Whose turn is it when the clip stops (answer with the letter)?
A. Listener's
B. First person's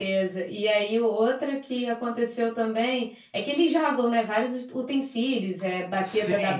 B